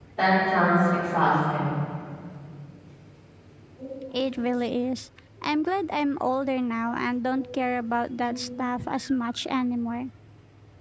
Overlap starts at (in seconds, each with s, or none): none